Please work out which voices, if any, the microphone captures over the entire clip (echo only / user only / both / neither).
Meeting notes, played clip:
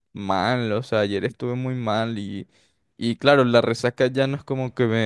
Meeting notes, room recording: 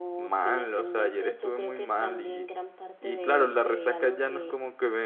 both